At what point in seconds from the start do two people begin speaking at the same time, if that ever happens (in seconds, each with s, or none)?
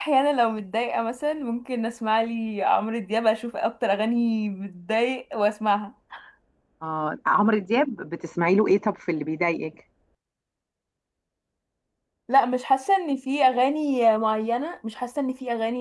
none